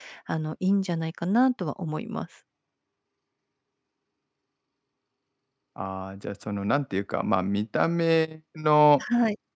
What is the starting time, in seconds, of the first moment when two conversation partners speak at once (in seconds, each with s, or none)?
none